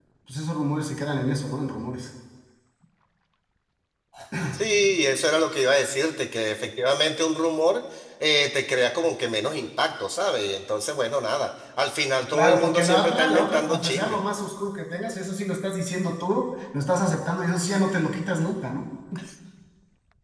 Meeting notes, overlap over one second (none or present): present